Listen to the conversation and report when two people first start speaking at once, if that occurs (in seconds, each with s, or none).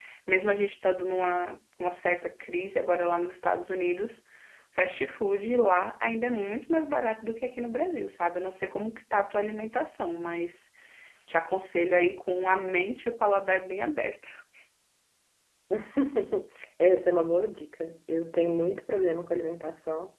none